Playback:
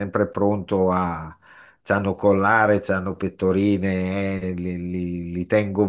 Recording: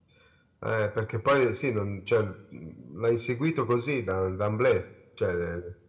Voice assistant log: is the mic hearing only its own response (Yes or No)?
No